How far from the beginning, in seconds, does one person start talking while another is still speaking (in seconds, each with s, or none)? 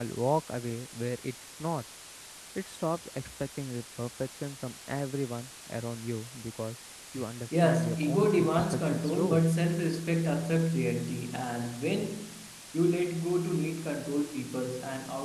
7.5 s